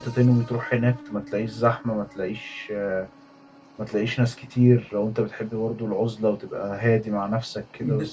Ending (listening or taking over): taking over